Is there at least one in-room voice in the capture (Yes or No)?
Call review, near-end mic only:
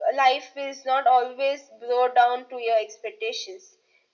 No